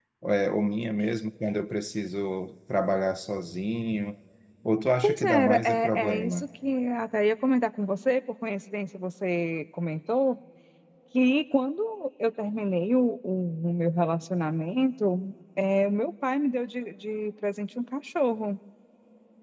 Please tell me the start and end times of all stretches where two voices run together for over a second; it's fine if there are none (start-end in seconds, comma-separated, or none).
5.0-6.5